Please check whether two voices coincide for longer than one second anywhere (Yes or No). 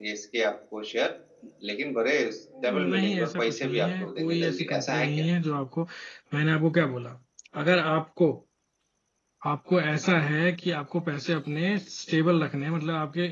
Yes